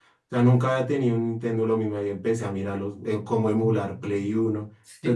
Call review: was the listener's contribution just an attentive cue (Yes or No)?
No